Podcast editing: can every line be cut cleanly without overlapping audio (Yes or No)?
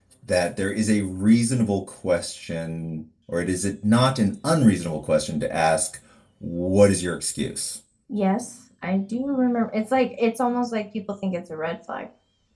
Yes